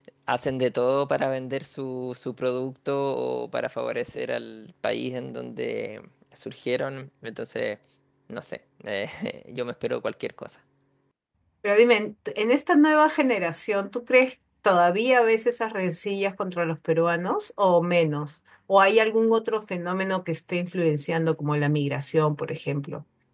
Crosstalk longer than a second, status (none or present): none